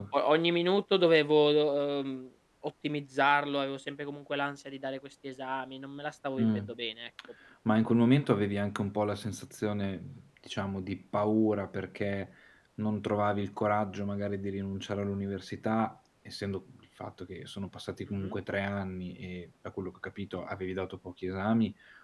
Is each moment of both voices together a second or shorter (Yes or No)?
Yes